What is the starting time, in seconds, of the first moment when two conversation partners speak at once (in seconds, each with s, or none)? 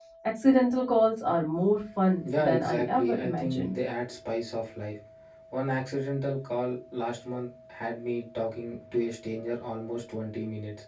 2.2 s